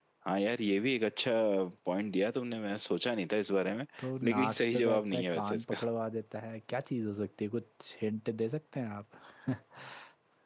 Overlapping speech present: Yes, from 4.3 s

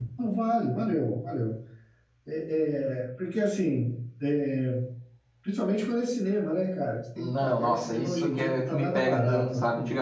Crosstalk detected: Yes, from 7.2 s

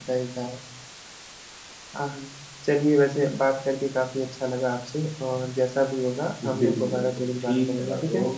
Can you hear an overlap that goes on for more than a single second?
Yes, from 6.4 s

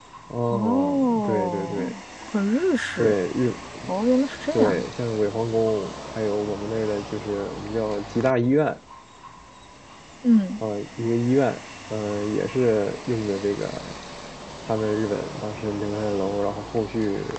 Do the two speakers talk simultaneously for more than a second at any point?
Yes, from 0.5 s

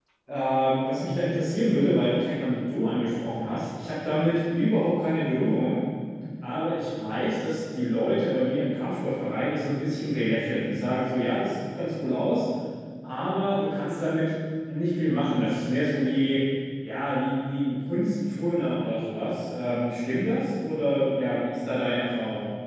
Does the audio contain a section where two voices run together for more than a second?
No

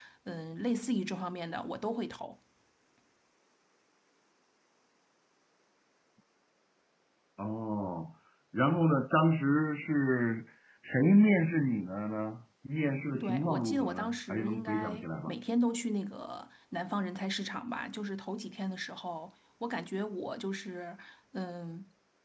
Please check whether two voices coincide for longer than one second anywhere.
Yes, from 13.2 s

